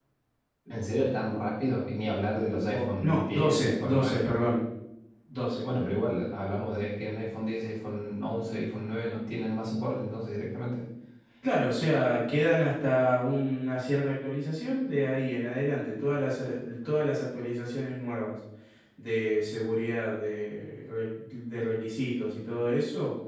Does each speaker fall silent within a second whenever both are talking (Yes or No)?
No